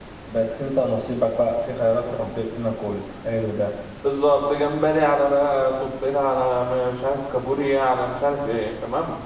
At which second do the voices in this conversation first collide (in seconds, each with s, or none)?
none